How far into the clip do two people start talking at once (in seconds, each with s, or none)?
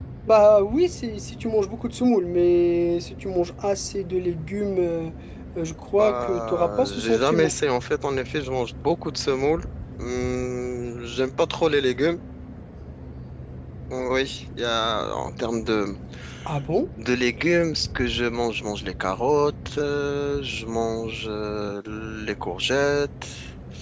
6.0 s